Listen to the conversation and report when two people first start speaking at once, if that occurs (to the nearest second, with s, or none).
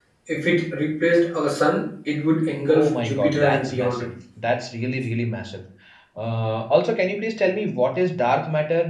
3 s